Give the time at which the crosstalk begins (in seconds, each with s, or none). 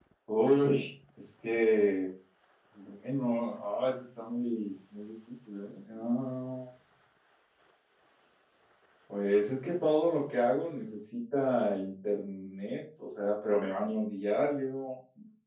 none